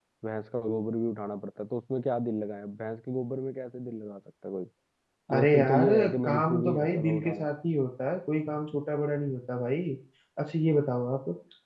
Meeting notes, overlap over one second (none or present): present